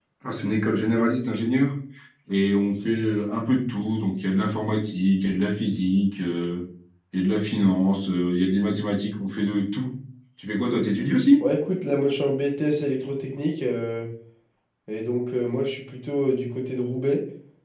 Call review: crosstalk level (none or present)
none